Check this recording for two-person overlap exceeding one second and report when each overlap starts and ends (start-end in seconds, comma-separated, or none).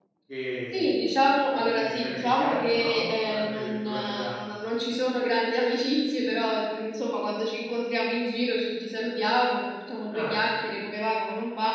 1.5-4.4